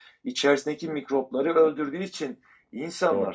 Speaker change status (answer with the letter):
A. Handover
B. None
B